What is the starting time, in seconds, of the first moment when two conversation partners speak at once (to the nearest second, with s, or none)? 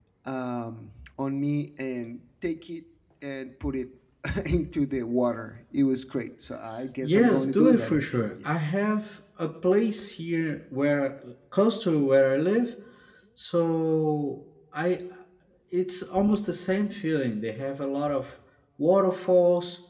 7 s